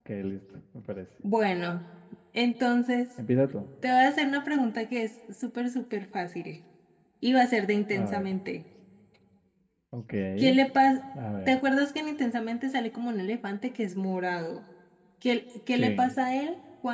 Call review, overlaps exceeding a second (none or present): none